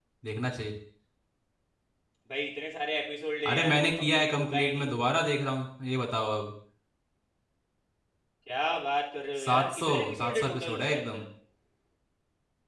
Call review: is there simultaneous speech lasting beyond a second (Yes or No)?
Yes